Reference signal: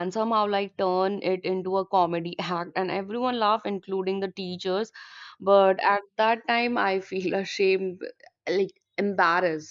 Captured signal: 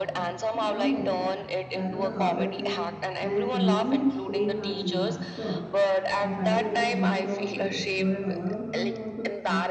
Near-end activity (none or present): present